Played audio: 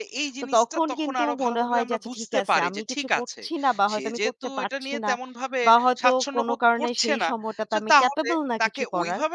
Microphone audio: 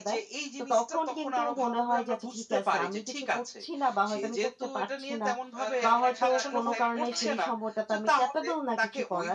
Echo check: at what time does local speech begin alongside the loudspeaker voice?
6 s

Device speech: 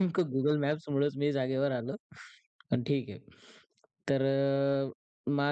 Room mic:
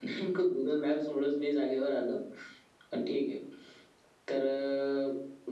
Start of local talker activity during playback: none

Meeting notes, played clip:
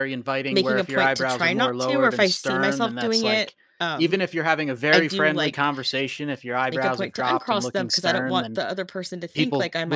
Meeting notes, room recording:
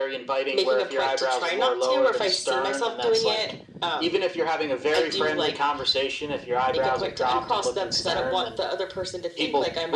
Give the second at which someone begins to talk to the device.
none

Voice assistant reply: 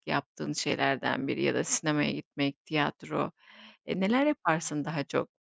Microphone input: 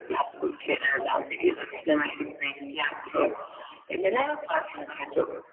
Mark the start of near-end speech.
none

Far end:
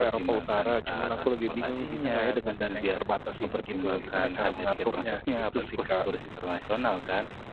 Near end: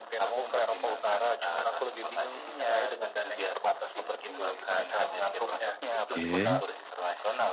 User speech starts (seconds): 6 s

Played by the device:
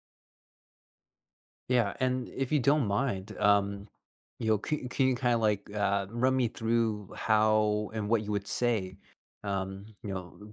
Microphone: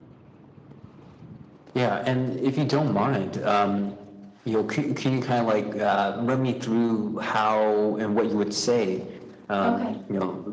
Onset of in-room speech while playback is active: 10 s

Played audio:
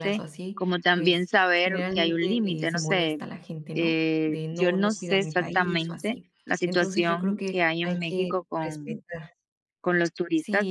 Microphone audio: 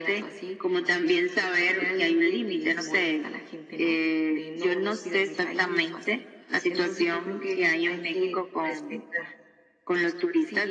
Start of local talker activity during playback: none

